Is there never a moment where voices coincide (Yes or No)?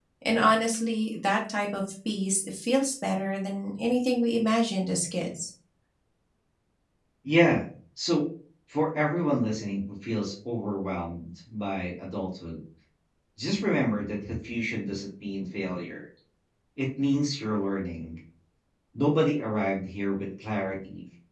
Yes